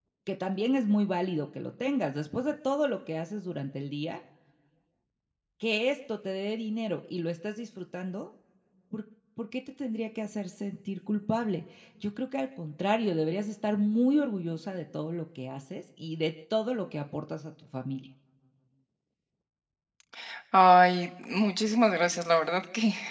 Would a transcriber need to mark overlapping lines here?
No

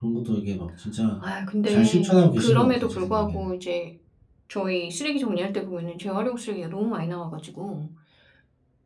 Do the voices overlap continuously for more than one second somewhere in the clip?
Yes, from 1.7 s

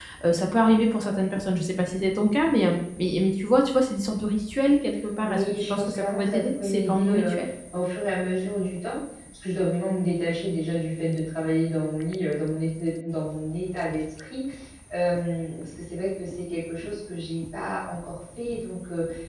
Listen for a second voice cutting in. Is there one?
Yes, from 5.2 s

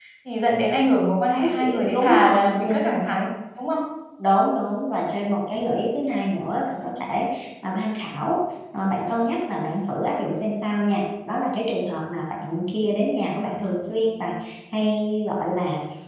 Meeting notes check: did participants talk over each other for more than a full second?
Yes, from 1.3 s

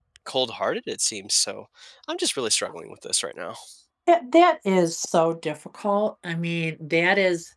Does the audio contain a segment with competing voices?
No

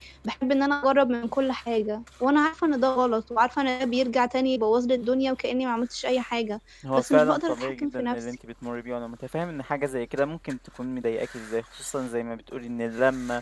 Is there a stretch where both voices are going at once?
Yes, from 6.8 s

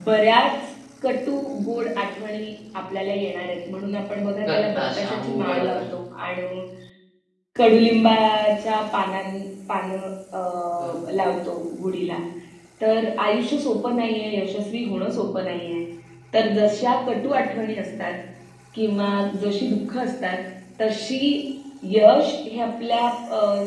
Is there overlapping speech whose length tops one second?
Yes, from 4.5 s

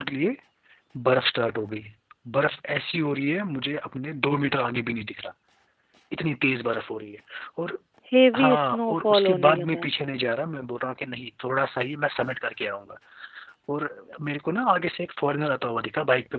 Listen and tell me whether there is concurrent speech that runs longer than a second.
Yes, from 8.4 s

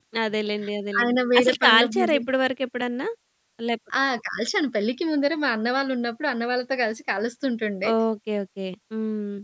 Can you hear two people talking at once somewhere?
Yes, from 1.0 s

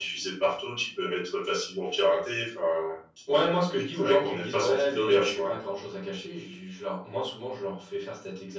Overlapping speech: Yes, from 4.0 s

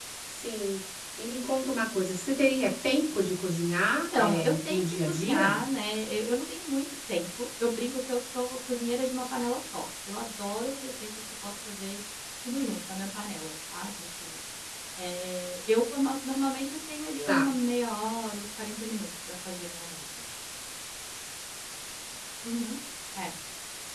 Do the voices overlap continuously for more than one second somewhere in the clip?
Yes, from 4.1 s

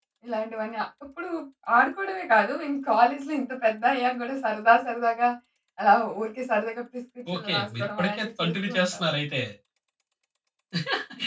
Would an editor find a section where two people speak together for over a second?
Yes, from 7.2 s

